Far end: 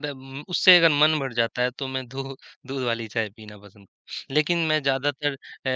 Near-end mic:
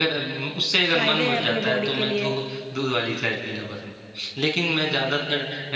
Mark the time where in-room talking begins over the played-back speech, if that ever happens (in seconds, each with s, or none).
0.9 s